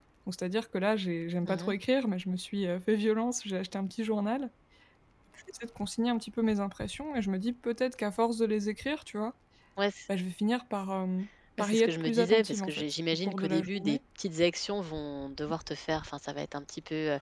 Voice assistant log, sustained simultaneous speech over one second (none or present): present